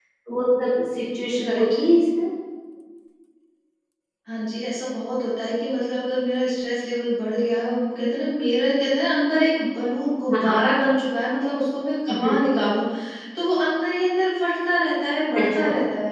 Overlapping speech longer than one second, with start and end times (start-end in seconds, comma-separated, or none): none